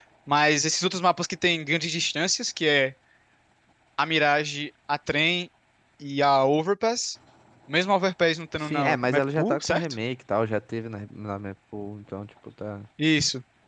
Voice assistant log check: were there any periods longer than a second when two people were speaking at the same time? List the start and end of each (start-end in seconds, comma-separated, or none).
8.6-9.9